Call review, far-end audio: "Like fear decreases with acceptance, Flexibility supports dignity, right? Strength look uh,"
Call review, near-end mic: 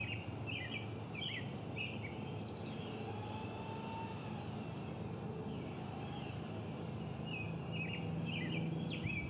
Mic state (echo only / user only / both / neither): neither